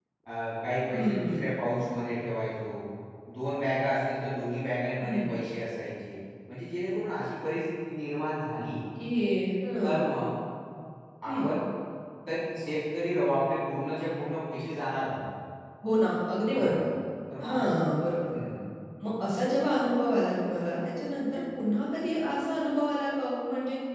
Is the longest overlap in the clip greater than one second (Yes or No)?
No